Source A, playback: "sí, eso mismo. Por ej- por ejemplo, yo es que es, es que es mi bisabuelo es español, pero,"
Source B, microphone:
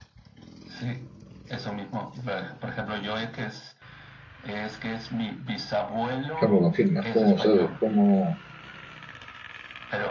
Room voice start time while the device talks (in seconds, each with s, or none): 6.4 s